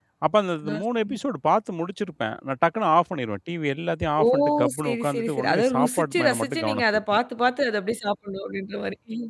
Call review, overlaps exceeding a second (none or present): present